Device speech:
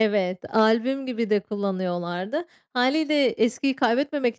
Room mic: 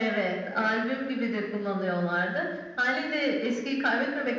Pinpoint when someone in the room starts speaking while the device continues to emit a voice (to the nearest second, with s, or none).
none